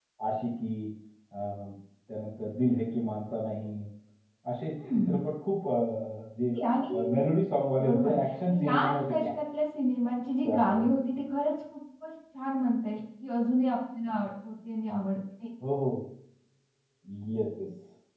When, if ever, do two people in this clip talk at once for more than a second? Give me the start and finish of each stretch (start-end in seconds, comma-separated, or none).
7.8-9.3